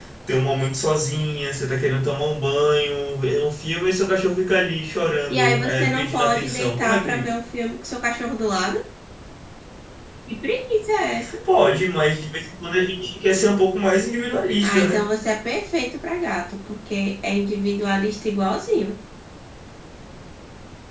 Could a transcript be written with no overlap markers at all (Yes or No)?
No